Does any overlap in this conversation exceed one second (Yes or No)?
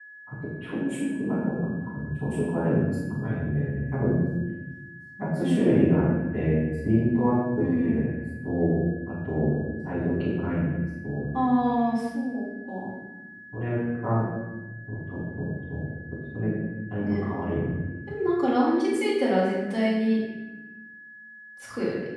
No